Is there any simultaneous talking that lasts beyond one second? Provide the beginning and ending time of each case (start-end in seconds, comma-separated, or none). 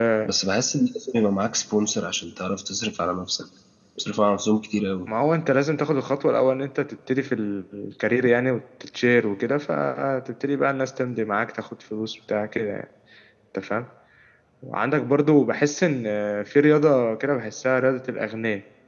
none